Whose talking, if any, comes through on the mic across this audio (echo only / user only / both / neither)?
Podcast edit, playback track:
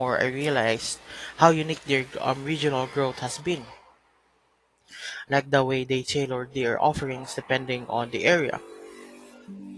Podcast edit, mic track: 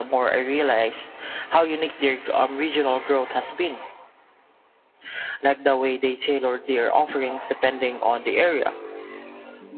echo only